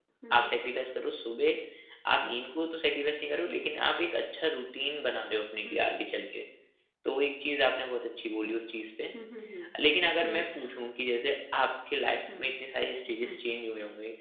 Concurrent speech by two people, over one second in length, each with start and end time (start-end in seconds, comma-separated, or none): none